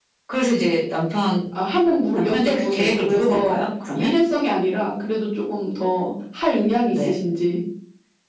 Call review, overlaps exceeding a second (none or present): present